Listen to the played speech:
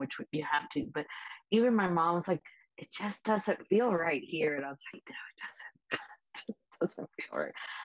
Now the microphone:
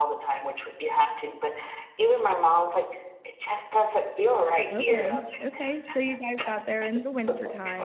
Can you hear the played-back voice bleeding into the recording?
Yes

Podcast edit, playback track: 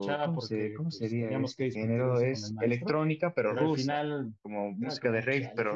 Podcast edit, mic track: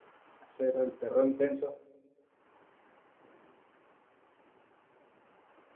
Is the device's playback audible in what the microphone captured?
No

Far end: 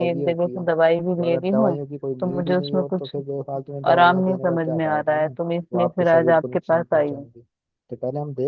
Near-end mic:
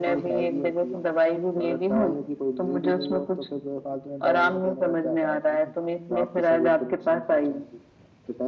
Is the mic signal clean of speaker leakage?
No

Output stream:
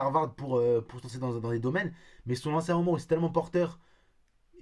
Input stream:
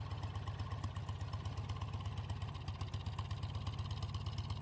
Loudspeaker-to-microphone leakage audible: No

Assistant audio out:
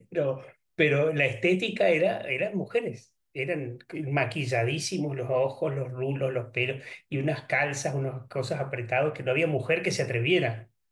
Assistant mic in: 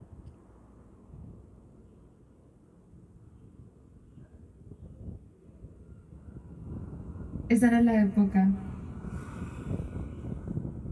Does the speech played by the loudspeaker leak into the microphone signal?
No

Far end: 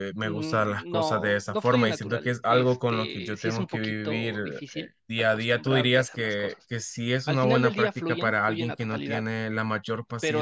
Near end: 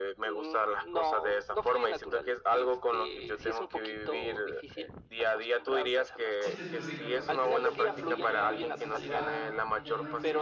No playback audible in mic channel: No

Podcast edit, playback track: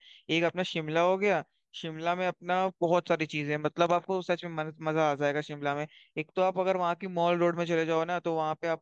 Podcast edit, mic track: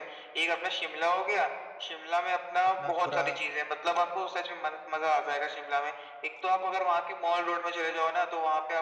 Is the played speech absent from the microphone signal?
No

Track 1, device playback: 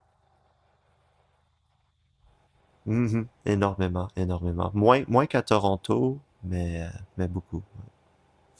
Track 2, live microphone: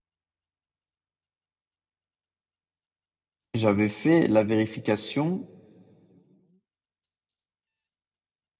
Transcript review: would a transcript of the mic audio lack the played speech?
Yes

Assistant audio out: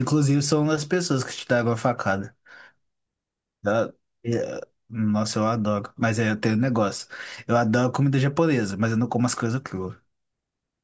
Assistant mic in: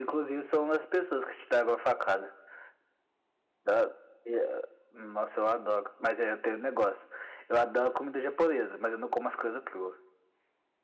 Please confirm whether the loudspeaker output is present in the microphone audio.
Yes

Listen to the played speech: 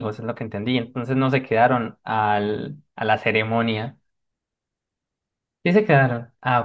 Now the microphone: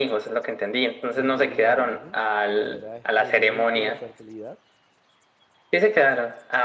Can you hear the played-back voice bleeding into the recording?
Yes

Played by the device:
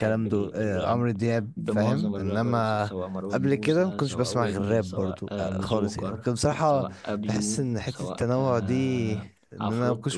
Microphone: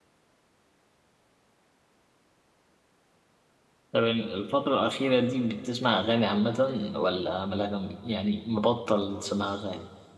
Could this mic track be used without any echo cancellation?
Yes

